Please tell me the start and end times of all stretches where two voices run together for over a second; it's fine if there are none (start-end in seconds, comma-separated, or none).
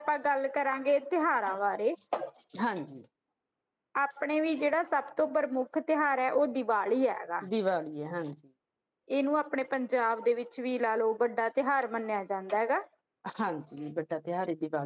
none